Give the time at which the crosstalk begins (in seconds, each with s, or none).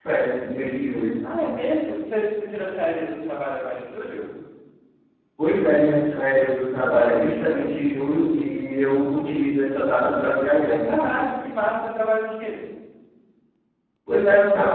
none